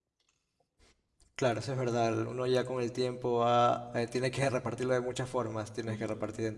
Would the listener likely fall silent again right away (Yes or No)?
Yes